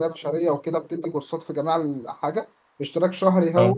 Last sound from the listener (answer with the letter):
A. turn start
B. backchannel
B